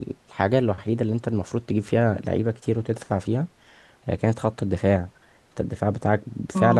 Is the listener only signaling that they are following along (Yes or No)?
No